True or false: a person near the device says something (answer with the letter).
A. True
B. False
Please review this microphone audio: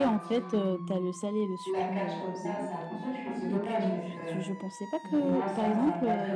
A